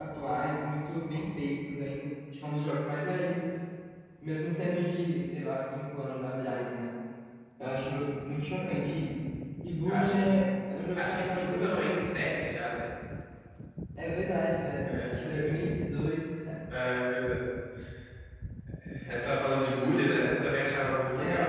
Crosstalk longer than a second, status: present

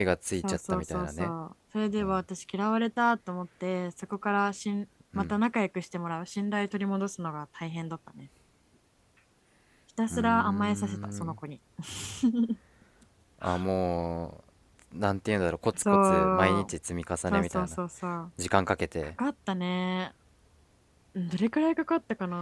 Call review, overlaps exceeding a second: present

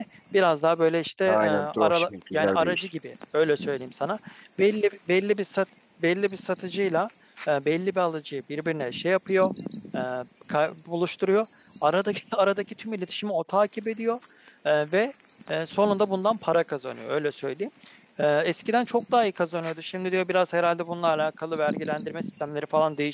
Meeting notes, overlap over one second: present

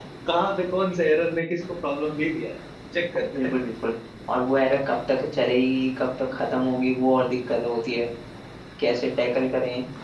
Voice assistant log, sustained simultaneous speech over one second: none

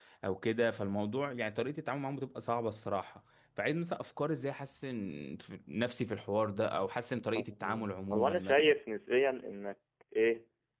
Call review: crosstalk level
present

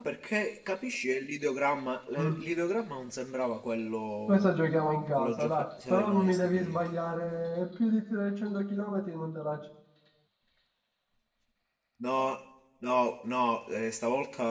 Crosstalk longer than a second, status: present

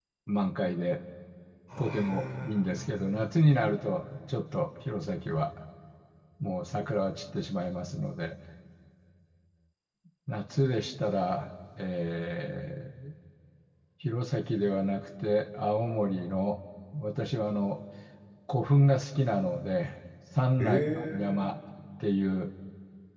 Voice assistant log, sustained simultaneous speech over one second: present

